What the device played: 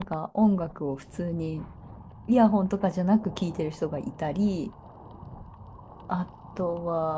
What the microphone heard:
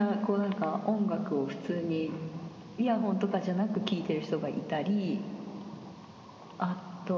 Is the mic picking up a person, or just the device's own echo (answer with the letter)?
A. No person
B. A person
A